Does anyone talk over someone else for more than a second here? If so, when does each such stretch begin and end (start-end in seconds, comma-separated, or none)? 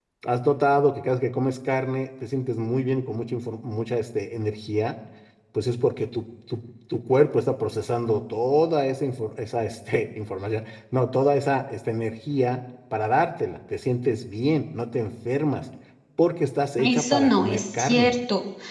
16.8-18.1